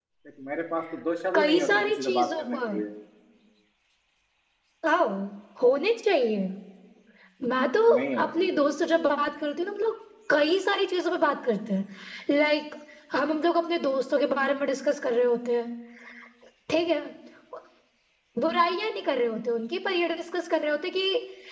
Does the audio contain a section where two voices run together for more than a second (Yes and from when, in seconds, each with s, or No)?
Yes, from 1.4 s